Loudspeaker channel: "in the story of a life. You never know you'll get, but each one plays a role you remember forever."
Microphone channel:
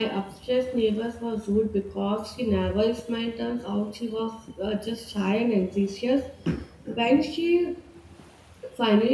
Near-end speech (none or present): present